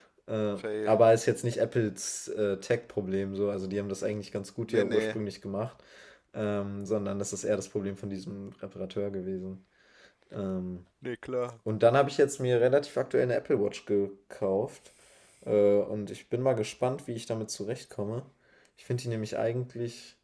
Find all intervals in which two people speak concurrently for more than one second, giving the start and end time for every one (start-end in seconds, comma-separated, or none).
none